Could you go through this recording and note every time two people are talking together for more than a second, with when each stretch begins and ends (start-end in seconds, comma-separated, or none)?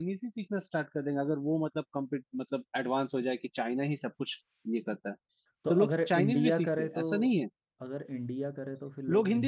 5.7-7.0